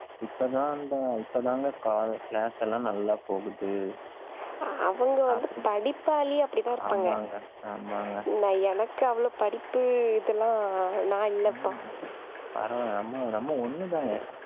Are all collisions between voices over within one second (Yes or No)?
Yes